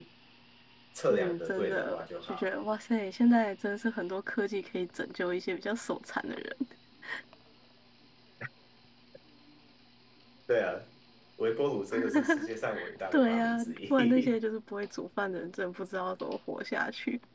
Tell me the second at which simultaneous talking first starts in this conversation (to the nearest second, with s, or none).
1 s